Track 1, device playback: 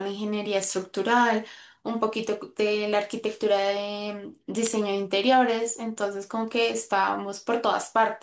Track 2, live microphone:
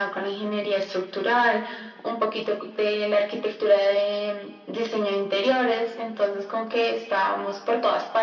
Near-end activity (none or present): none